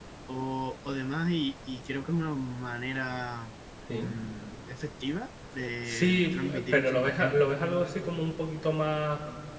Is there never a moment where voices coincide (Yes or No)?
No